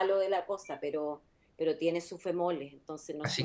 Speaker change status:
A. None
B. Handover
B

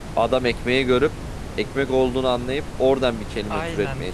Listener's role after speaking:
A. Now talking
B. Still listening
A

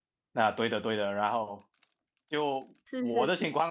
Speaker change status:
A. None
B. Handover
A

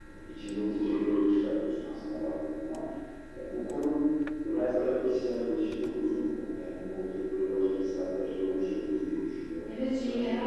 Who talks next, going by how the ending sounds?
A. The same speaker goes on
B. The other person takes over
B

